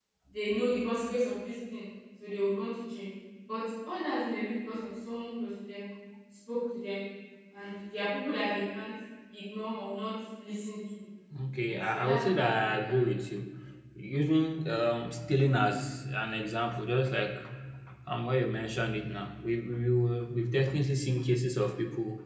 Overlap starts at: 12 s

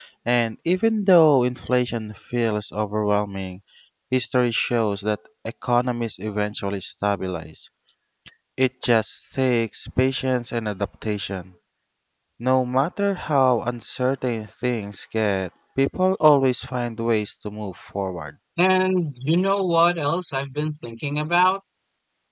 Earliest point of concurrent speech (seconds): none

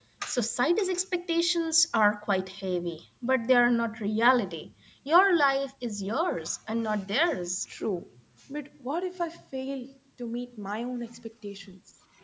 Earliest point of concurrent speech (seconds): none

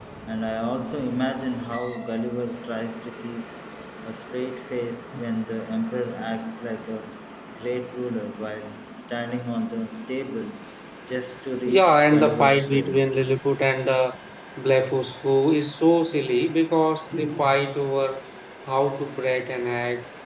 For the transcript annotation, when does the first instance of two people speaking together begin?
12 s

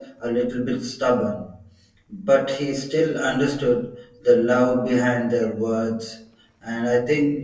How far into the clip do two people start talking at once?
none

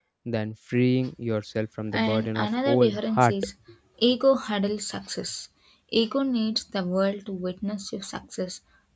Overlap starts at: 2 s

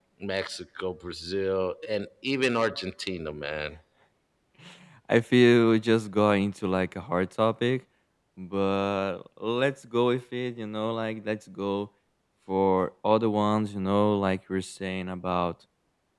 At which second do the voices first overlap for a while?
none

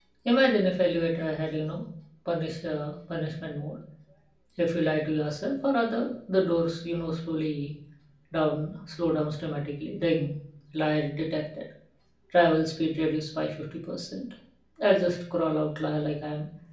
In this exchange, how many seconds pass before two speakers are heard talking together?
none

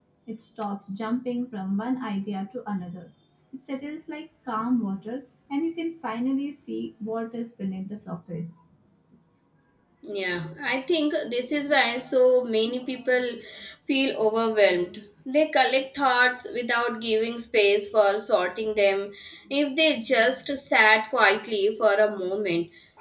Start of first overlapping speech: none

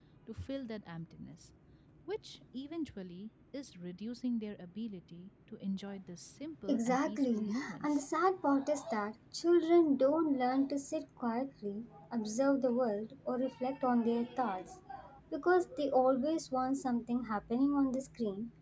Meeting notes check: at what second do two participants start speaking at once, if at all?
7 s

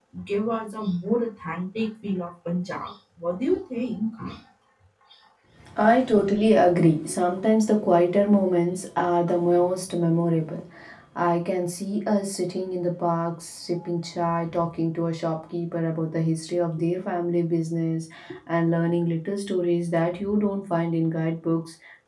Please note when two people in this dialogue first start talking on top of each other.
none

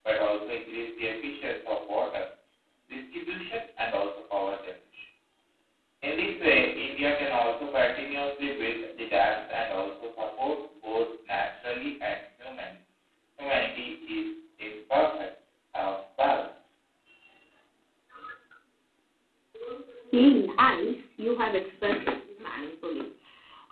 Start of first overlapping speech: none

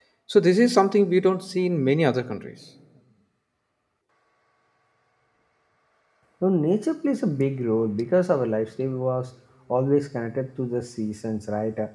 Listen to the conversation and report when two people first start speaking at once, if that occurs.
none

